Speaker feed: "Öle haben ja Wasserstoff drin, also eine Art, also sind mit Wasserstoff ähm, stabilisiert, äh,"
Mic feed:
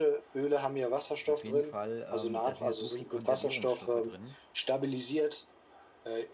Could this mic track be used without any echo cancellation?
No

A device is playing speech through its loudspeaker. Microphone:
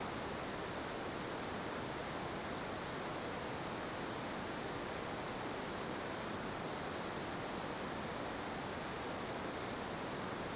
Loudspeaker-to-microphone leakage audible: No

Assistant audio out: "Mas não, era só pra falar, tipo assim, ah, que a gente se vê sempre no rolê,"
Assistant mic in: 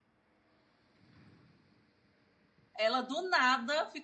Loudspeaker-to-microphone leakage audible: No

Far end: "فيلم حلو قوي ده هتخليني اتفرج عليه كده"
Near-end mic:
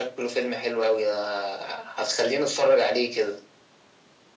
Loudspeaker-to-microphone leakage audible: Yes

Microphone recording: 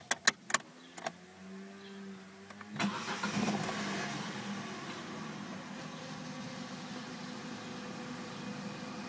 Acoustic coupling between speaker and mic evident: No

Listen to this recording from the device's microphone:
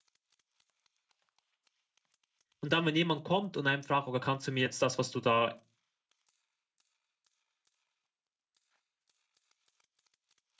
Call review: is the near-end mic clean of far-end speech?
Yes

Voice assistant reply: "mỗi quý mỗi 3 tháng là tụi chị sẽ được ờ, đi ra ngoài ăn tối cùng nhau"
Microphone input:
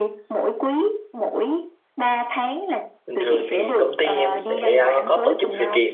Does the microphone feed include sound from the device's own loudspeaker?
Yes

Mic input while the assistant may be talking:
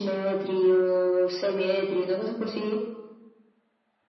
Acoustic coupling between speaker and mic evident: Yes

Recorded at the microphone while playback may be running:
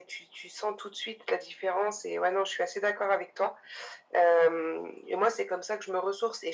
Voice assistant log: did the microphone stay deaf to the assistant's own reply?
No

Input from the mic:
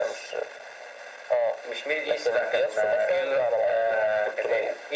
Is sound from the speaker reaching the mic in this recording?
Yes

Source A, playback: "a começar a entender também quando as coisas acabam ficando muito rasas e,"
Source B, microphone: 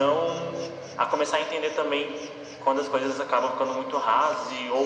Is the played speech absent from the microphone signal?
No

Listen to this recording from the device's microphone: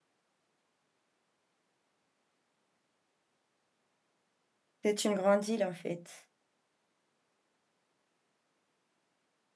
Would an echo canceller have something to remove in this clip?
No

